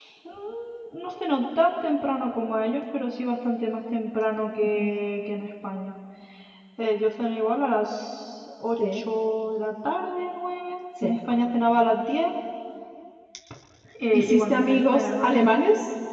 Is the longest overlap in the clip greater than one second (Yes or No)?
Yes